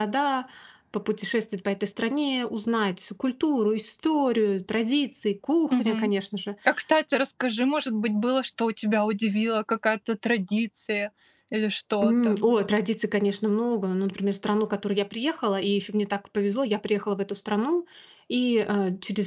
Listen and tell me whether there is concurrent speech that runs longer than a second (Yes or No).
No